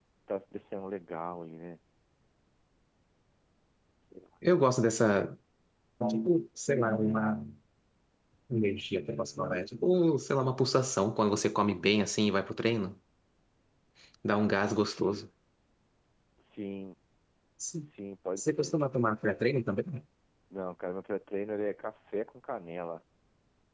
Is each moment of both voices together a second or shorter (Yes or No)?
Yes